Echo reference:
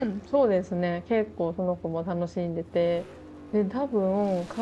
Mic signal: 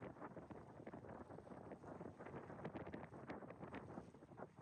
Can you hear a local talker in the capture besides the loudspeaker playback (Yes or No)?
No